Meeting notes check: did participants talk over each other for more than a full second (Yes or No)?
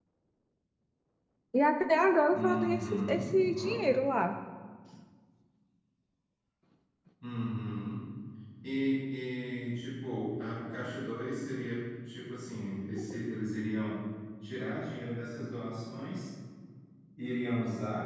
Yes